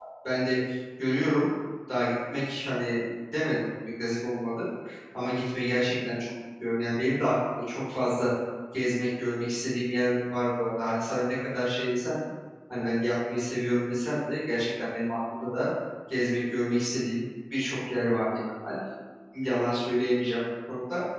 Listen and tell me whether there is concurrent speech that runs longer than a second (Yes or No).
No